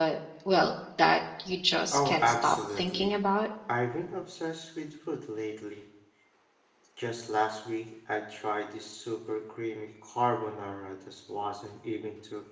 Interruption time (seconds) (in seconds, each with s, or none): 1.9 s